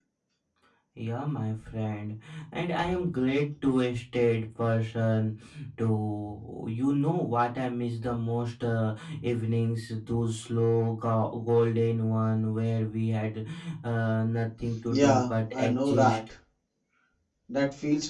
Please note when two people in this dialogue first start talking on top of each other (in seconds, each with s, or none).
14.9 s